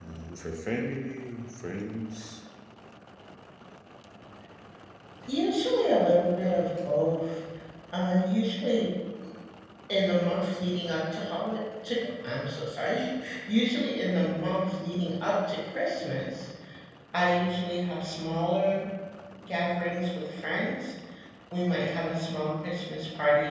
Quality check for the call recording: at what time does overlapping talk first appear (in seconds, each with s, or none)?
none